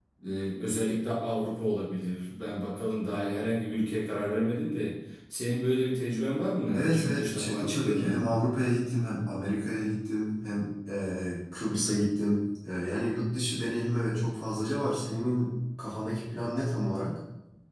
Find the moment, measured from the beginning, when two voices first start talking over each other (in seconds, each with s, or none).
6.7 s